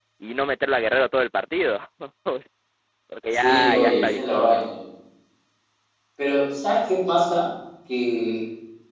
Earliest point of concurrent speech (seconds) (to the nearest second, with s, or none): 3 s